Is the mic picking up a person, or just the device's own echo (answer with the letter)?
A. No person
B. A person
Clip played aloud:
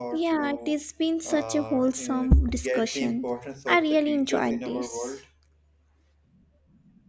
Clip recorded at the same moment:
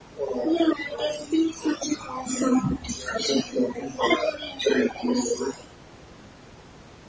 A